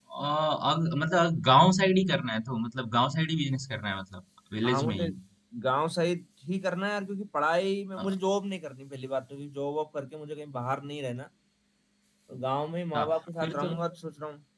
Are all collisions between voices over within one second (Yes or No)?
Yes